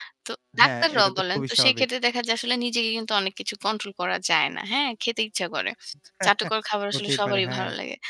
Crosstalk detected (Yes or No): Yes